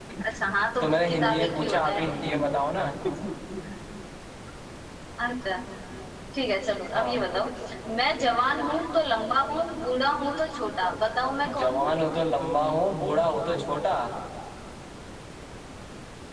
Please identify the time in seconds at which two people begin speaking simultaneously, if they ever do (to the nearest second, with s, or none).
1 s